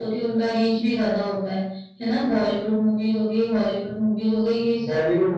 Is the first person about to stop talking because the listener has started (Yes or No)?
Yes